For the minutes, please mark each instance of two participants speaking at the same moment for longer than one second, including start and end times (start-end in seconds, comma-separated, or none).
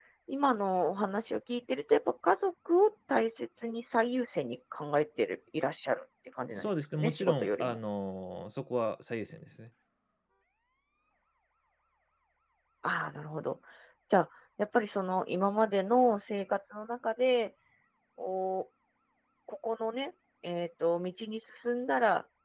6.6-7.8